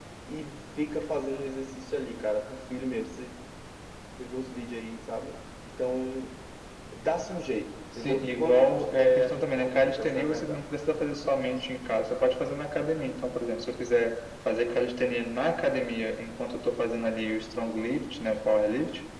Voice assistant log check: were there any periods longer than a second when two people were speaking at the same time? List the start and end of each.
8.0-10.7

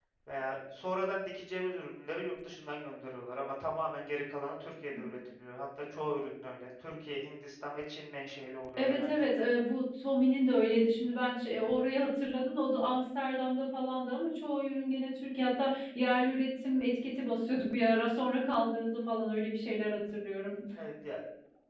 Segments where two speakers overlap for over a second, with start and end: none

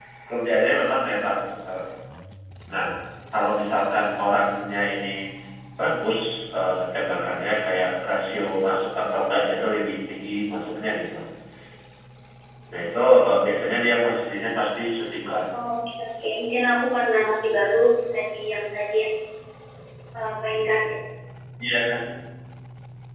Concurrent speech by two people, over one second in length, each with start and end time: none

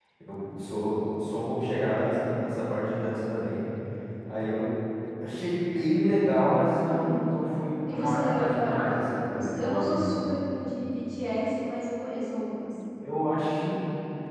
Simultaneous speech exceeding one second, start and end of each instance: 7.8-10.1

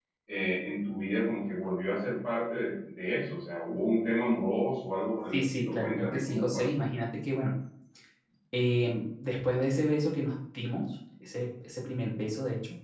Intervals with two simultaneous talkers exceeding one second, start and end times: 5.3-6.7

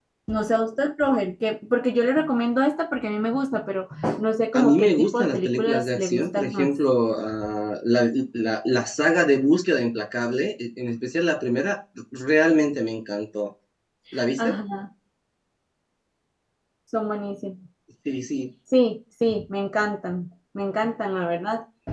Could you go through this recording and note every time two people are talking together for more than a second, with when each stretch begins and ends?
4.5-6.7

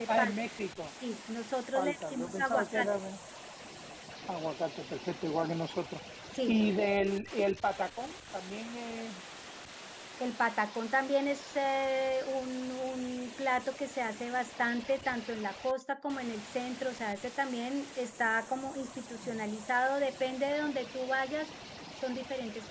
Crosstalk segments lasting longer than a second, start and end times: 1.7-3.0

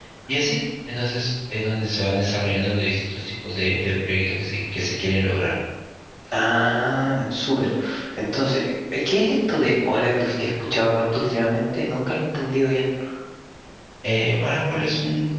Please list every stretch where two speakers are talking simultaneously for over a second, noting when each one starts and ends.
none

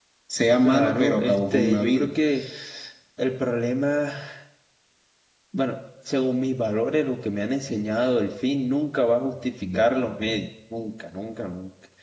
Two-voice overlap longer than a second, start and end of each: 0.6-2.1

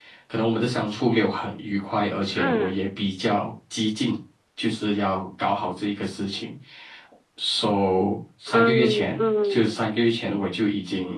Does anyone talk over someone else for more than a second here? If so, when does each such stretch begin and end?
8.5-9.9

